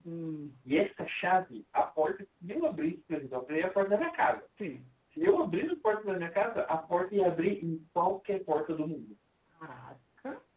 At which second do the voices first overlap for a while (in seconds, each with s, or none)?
none